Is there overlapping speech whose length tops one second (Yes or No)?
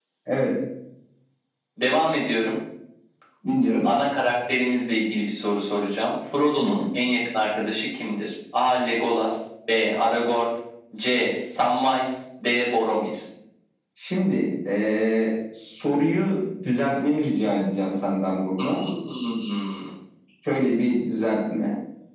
No